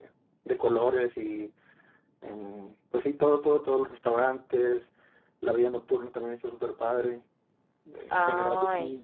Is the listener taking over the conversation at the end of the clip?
No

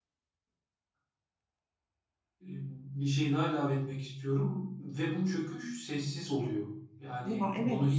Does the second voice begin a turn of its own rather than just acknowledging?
No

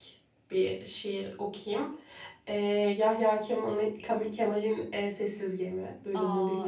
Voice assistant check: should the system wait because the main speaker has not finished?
No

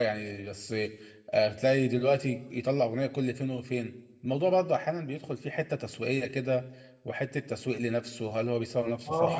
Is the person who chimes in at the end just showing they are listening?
No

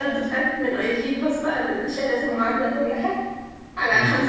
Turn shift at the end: No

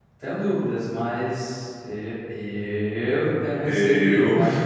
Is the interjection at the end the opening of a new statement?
No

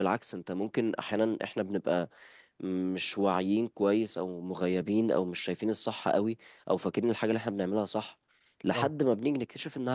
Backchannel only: Yes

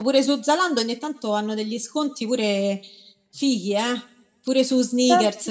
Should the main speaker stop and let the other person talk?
Yes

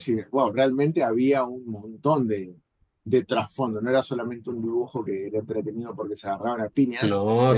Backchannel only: Yes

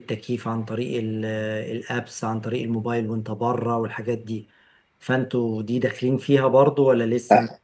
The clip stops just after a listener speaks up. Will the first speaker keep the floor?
No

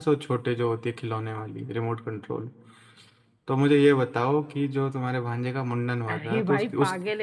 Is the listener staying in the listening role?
No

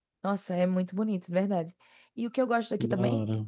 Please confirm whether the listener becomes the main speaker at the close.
No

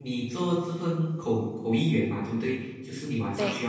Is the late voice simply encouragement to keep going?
Yes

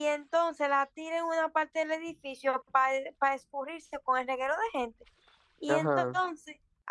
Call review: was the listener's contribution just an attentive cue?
Yes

